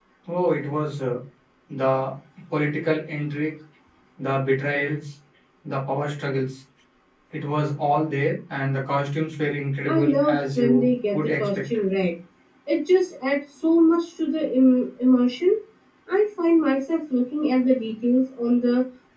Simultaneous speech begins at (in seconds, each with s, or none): 9.9 s